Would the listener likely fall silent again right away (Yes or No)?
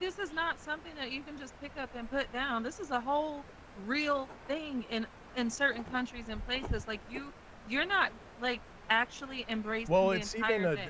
No